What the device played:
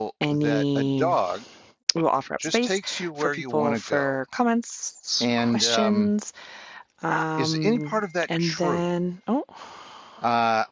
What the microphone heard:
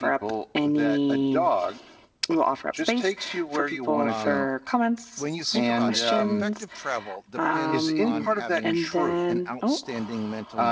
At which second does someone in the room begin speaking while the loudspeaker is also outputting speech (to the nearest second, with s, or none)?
4 s